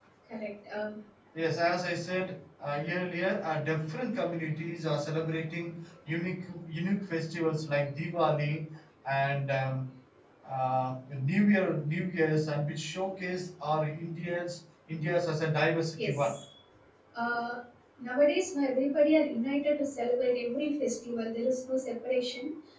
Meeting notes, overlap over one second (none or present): none